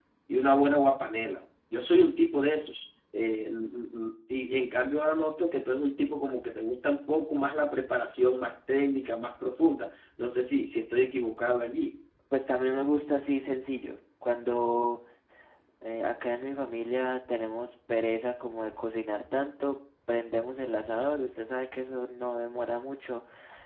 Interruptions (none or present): none